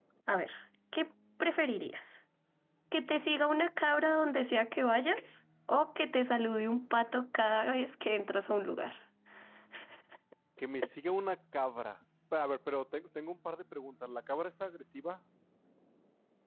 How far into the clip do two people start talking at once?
none

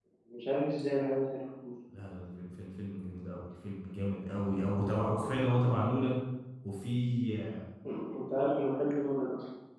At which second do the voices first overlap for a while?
none

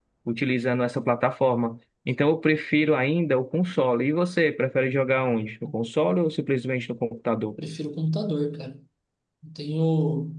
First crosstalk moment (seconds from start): none

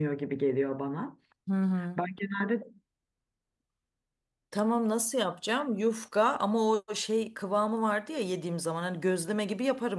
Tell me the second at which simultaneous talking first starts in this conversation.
none

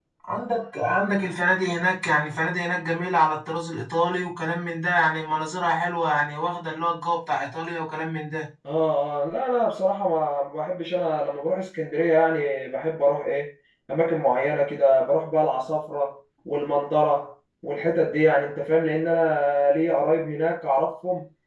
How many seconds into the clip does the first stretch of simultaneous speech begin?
none

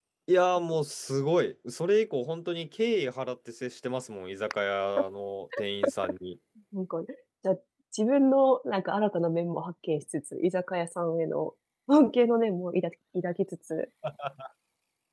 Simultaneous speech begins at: none

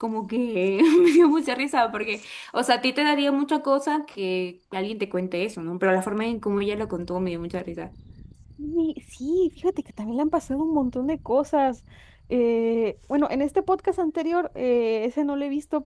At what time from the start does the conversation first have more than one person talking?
none

